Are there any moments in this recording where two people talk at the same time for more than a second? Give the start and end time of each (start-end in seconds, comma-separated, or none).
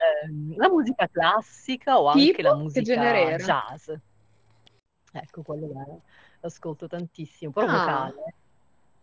2.1-3.5